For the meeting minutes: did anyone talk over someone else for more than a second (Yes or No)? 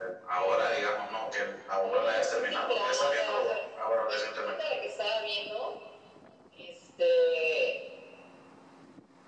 Yes